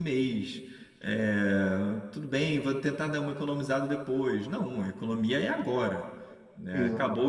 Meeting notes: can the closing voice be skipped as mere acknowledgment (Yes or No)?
Yes